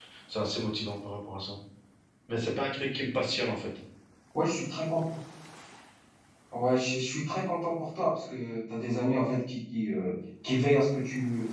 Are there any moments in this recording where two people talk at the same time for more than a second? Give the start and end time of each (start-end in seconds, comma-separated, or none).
none